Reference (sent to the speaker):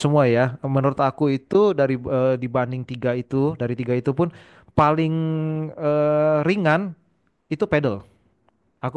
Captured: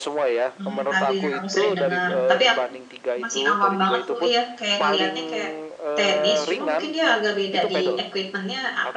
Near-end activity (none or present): present